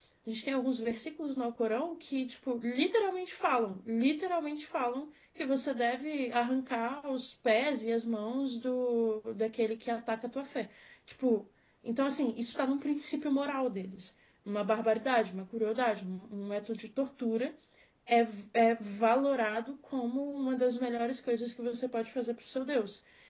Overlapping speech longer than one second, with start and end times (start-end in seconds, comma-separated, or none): none